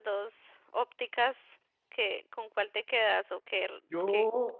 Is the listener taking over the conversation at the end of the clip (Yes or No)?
Yes